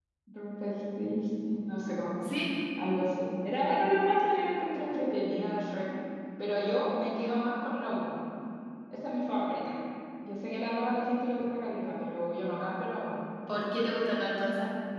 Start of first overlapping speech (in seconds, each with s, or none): none